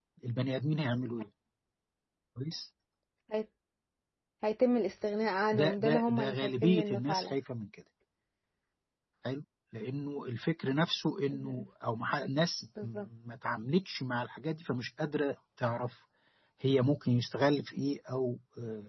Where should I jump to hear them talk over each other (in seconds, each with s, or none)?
5.5 s